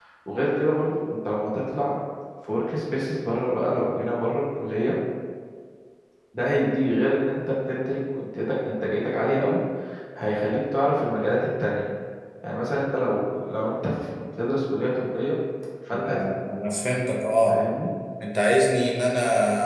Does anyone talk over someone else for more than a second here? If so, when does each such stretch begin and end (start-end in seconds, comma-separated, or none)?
none